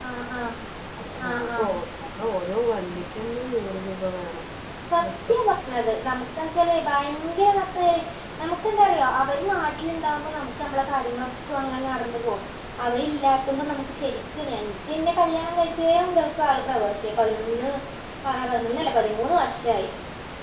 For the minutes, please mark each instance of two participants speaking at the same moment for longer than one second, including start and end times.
none

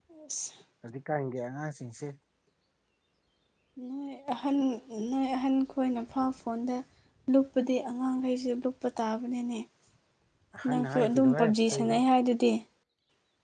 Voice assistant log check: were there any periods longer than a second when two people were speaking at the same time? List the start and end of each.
10.7-12.0

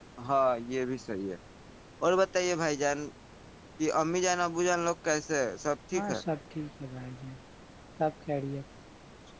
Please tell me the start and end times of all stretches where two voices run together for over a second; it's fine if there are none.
none

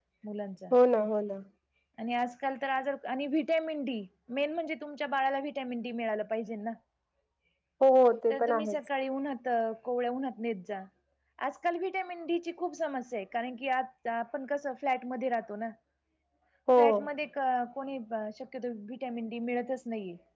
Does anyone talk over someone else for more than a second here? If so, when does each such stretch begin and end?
none

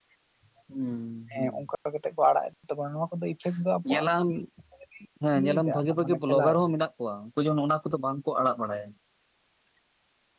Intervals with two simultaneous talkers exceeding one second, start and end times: 5.4-6.6

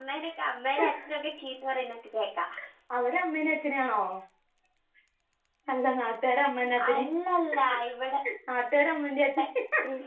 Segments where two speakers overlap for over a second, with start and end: none

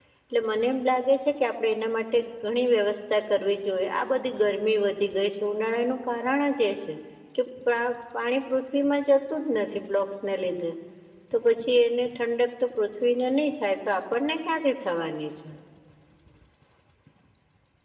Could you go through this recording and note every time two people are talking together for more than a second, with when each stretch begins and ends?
none

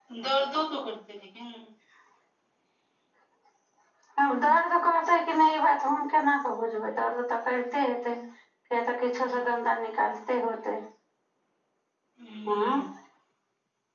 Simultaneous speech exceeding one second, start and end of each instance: none

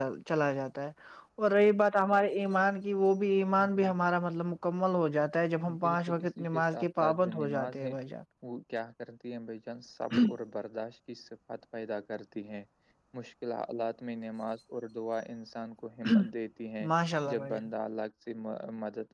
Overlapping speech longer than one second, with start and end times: 5.8-7.9

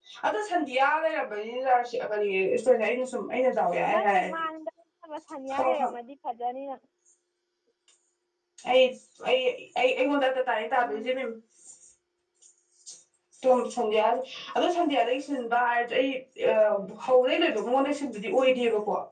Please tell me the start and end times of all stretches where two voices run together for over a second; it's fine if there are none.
none

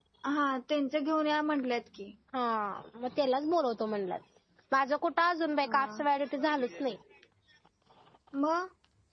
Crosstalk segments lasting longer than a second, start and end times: none

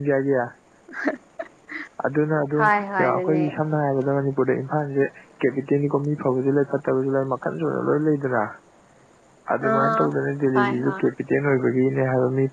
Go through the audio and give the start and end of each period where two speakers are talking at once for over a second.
none

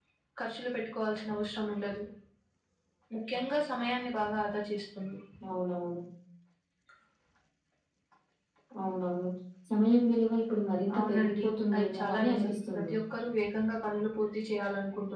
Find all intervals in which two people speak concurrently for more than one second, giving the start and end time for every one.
10.9-12.9

